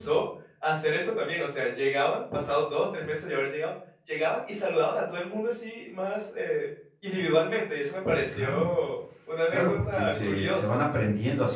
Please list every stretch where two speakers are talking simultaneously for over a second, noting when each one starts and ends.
9.5-10.8

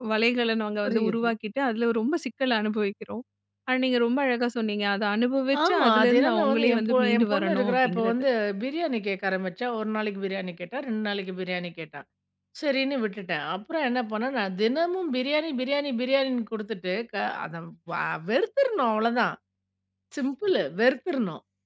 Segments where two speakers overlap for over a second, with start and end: 5.6-8.1

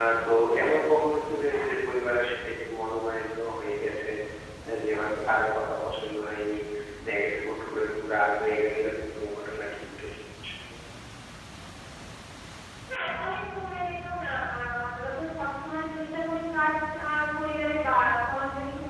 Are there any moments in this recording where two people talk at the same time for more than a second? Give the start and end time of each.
none

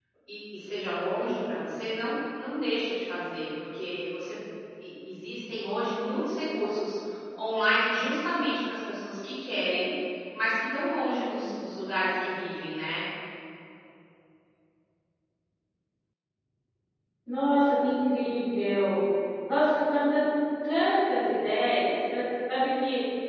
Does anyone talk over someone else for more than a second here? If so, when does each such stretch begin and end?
none

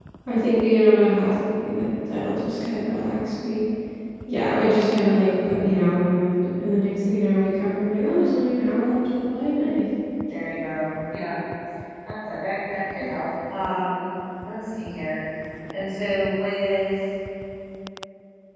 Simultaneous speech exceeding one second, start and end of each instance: none

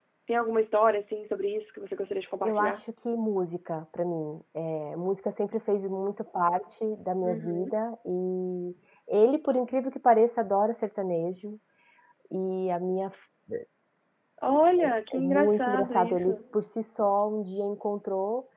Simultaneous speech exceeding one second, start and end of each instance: 15.1-16.4

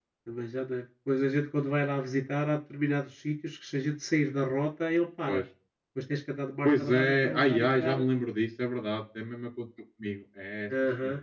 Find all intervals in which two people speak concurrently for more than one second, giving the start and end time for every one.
6.6-8.0

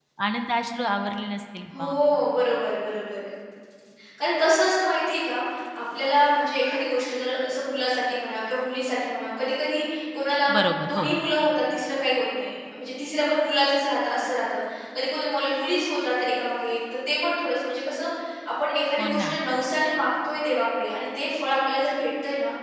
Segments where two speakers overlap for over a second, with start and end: none

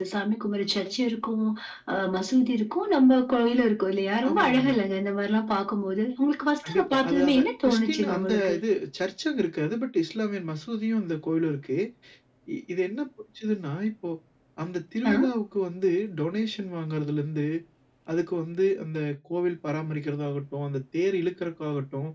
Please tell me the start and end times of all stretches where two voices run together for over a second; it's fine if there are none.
6.6-8.6

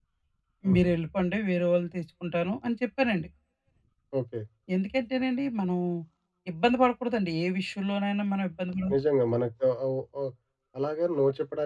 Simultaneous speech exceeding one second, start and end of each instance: none

